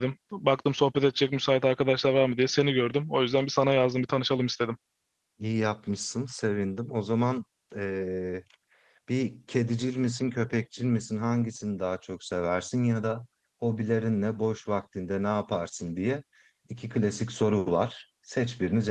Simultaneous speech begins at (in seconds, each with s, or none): none